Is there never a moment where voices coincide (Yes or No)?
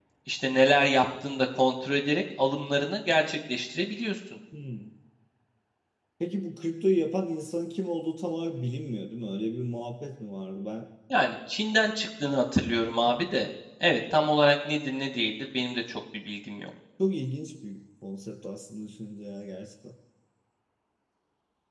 Yes